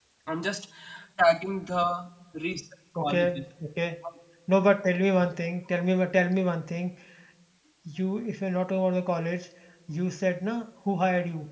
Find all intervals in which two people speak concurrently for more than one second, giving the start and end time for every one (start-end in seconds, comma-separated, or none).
none